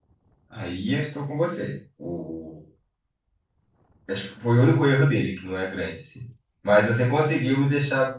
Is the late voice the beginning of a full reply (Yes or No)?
No